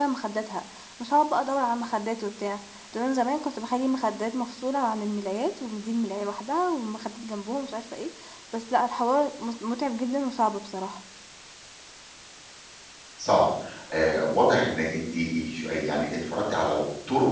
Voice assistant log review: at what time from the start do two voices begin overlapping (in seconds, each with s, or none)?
none